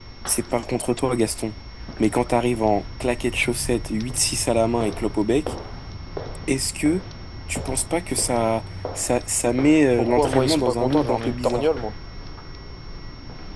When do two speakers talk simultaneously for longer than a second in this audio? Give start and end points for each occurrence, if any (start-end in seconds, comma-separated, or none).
10.0-11.7